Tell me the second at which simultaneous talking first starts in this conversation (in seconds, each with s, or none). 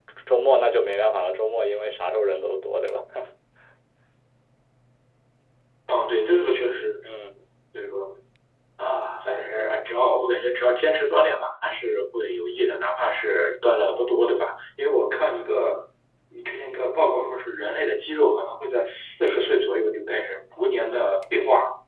none